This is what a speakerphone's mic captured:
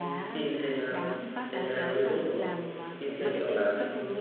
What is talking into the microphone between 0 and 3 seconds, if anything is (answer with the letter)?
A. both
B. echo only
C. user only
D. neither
A